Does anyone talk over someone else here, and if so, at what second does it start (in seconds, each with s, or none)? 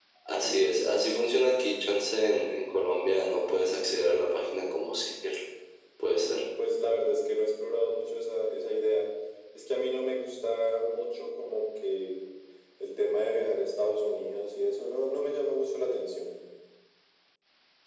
none